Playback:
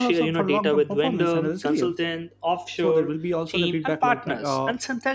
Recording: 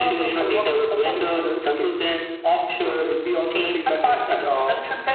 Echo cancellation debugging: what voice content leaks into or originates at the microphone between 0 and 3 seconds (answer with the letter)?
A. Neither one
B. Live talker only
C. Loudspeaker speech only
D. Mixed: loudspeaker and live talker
C